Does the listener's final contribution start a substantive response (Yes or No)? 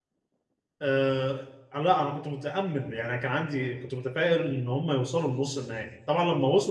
No